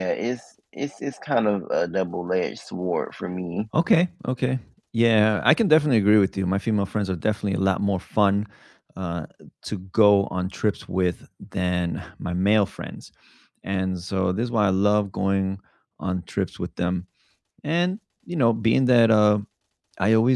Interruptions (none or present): none